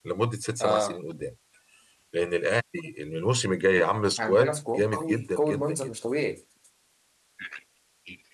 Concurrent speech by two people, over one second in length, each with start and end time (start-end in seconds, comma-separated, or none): 4.2-5.9